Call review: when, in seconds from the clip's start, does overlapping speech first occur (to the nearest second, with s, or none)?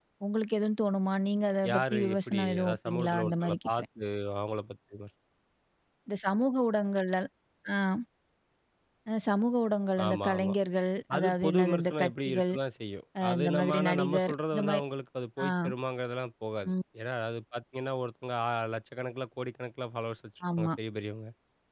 2 s